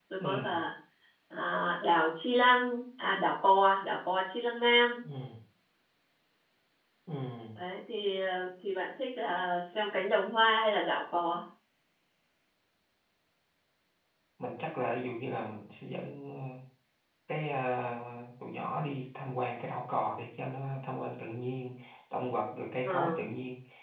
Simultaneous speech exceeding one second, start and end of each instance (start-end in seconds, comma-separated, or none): none